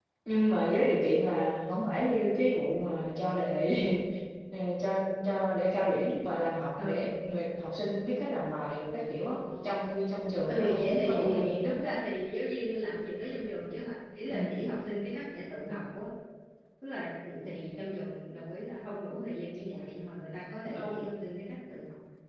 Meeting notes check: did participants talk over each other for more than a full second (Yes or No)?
Yes